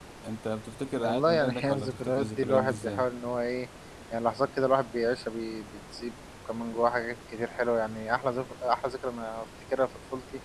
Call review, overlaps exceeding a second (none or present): present